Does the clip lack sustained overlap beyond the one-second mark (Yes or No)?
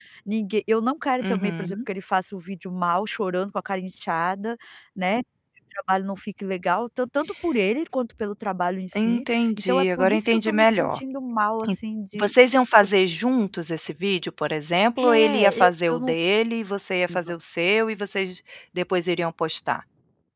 No